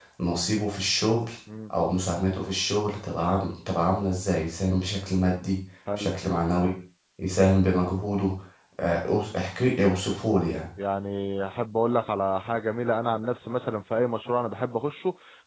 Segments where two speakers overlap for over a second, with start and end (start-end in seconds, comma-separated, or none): none